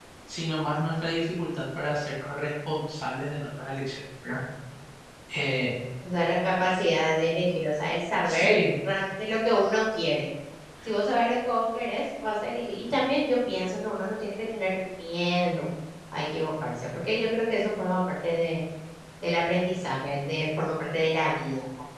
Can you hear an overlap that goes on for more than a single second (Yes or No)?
No